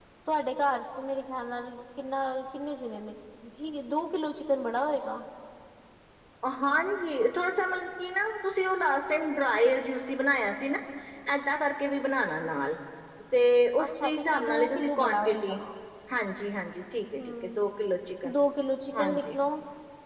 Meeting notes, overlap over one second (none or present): present